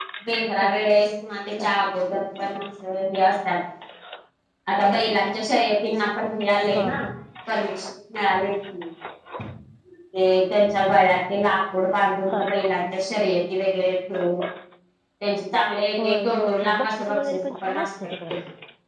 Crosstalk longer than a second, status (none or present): present